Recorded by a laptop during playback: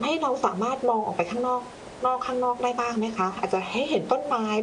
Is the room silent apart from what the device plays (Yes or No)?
No